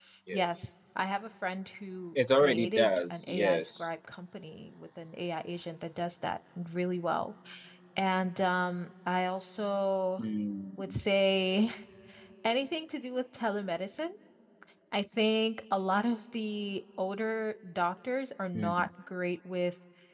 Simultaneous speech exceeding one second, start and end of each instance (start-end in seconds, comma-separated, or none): 2.3-3.9